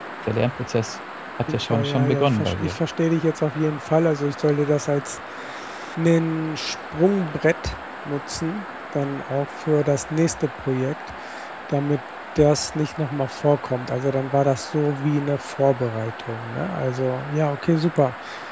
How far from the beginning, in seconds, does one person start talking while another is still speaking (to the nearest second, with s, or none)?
1 s